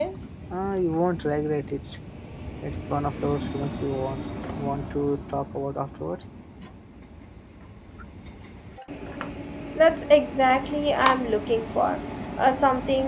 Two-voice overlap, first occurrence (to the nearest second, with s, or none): none